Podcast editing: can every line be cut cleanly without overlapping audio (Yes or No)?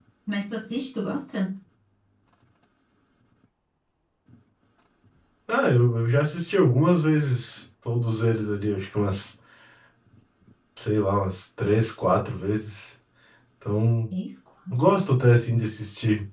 Yes